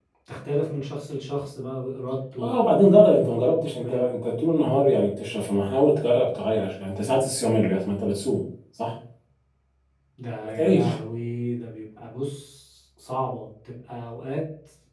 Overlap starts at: 2 s

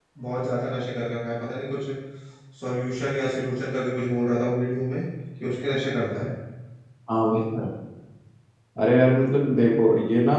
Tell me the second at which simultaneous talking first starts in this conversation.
none

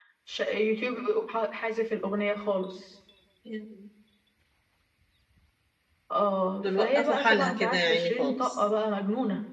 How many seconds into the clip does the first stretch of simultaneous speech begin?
7 s

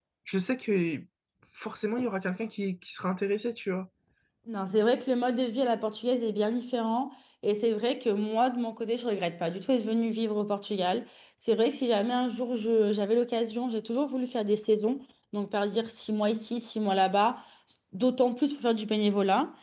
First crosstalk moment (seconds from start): none

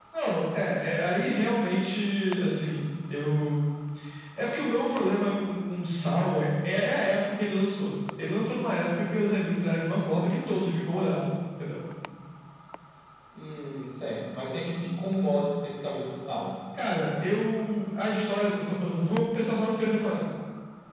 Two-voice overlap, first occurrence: none

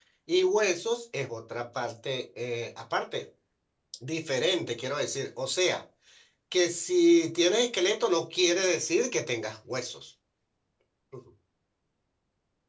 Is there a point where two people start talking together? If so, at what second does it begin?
none

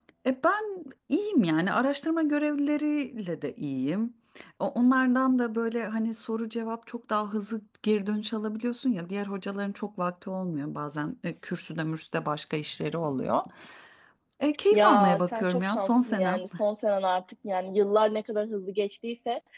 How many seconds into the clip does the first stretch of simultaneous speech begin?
15 s

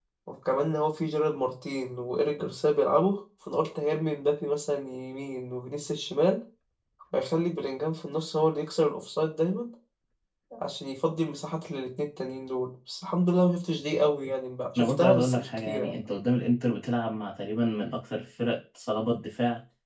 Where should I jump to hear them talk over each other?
15 s

